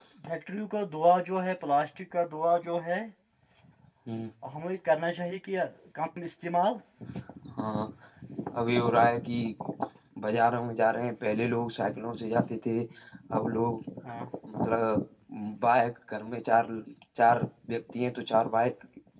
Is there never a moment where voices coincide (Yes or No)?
Yes